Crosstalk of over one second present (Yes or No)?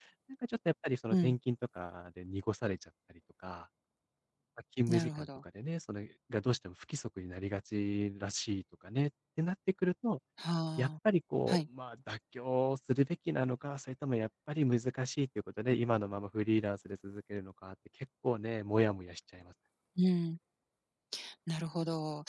No